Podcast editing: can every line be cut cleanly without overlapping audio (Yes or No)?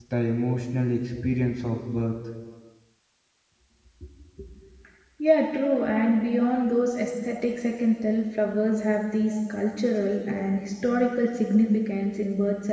Yes